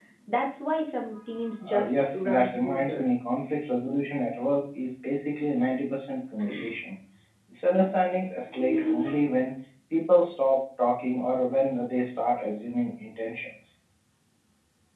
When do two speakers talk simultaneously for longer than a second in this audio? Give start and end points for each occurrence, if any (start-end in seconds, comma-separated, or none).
1.7-3.1